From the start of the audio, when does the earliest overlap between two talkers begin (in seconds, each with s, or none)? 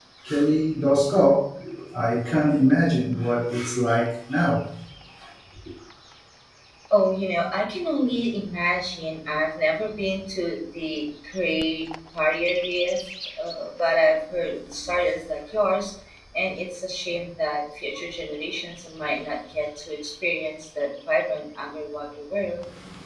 none